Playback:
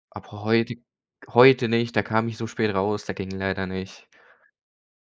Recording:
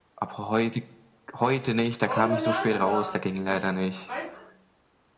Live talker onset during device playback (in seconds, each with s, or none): 2.1 s